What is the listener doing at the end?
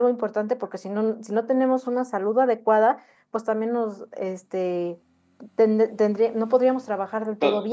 taking over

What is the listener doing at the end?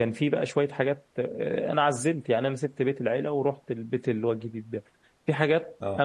listening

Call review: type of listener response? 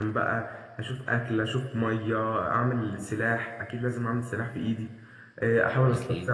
listening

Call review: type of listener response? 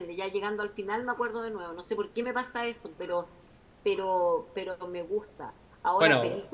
listening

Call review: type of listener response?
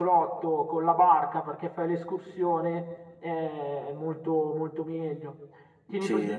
listening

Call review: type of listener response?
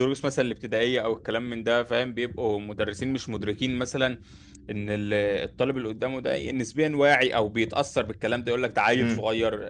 listening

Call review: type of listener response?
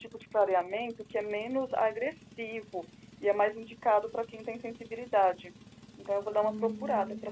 taking over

